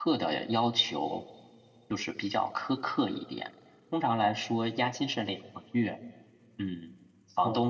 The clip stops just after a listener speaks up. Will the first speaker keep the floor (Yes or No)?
Yes